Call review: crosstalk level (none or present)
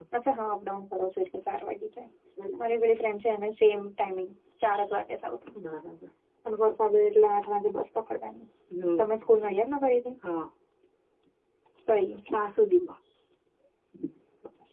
none